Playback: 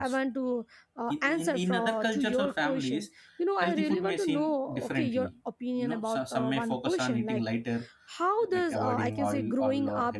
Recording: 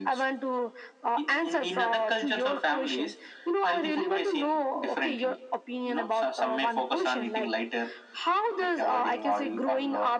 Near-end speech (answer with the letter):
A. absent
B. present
A